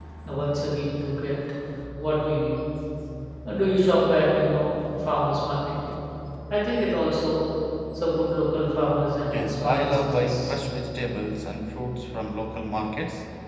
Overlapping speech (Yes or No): Yes